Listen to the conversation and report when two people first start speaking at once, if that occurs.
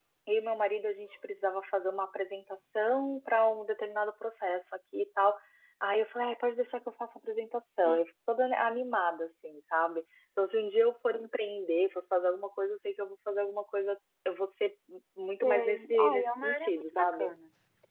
15.4 s

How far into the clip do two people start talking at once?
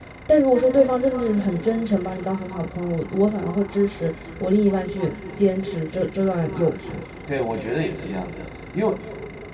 none

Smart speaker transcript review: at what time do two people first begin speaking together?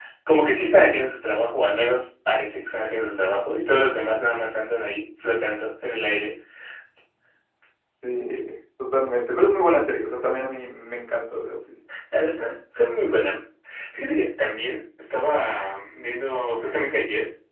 none

